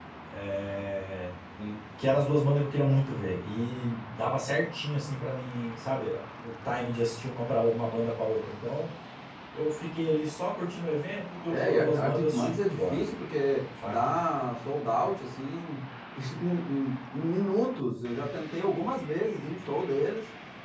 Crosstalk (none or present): present